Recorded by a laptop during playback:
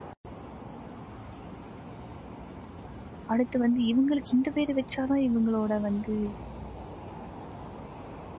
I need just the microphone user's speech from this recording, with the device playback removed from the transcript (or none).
அடுத்து வந்து இவுங்களுக்கு இந்த பேர் வச்சா தான் இவுங்களோட வந்து